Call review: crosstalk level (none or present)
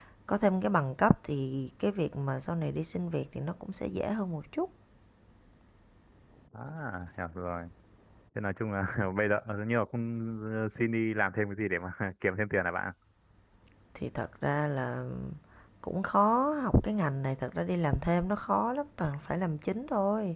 none